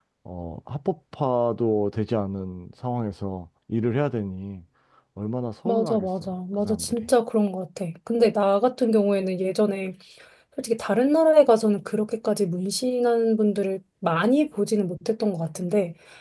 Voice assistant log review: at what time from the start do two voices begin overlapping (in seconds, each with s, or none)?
5.7 s